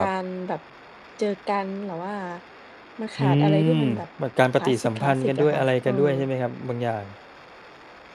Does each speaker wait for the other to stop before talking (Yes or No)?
No